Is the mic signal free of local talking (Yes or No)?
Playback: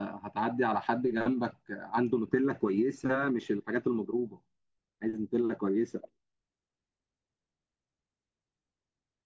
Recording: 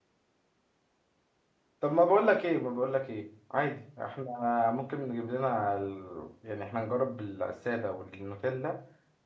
No